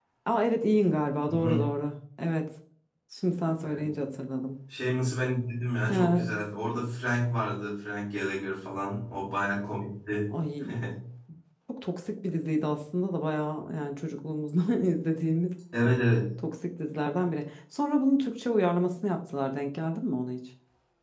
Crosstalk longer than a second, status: none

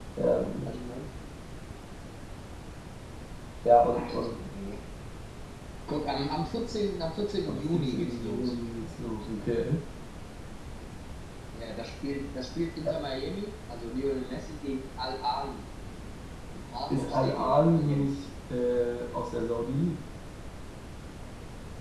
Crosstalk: present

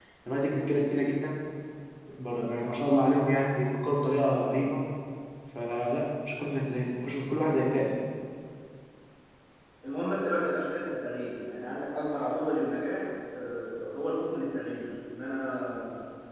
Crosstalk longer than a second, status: none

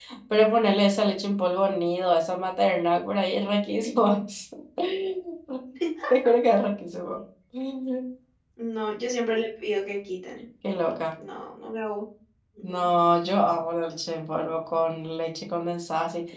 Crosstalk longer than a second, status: none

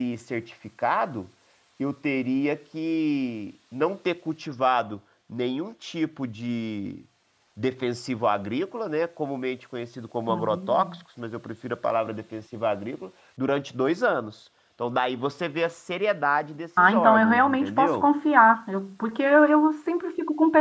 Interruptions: present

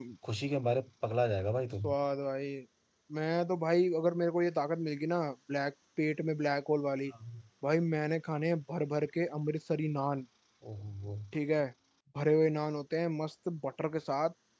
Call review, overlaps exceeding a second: none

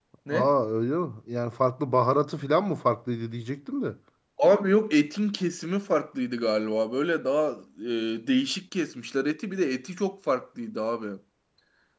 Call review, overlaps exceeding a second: none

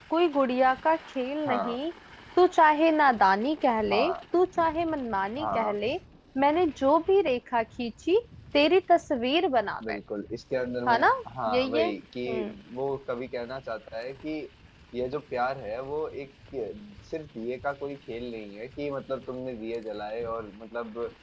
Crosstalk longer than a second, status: none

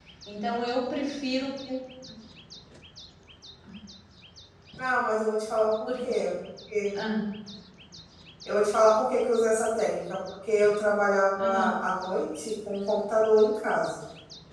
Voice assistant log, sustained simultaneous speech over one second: none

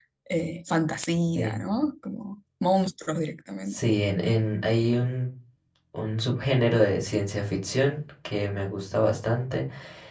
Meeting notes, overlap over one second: none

